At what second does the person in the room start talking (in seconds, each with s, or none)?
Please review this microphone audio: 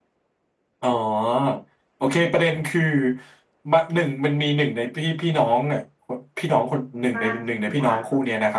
7.1 s